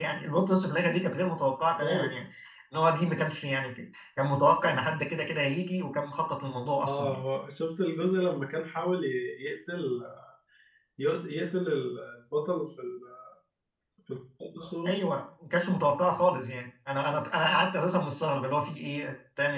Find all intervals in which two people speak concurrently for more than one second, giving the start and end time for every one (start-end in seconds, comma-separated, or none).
none